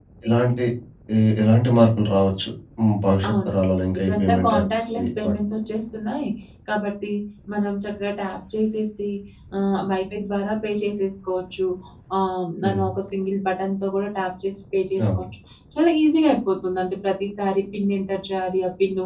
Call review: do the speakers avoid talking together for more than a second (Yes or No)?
No